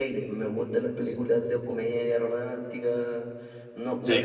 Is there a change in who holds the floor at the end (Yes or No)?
No